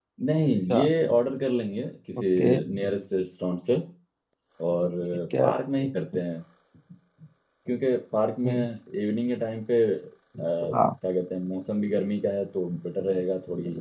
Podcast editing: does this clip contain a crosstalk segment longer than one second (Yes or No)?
No